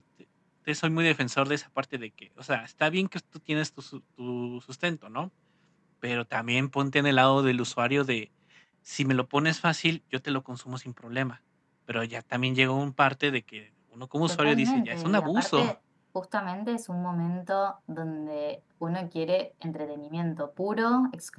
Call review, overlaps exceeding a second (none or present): present